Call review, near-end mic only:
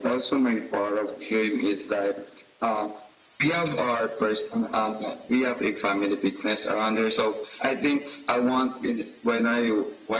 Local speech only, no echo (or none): none